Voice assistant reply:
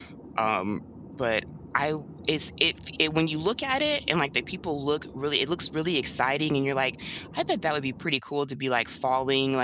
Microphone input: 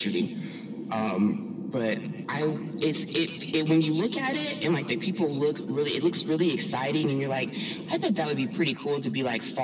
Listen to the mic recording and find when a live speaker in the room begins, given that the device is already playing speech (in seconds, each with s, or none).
none